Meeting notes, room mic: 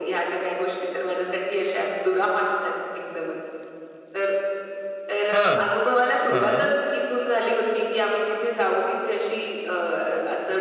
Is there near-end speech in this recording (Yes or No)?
Yes